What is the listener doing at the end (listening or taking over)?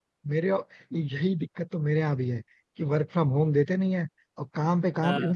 listening